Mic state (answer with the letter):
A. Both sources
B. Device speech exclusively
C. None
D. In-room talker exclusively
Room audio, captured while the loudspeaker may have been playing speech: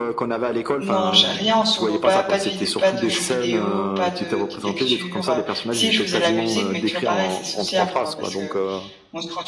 A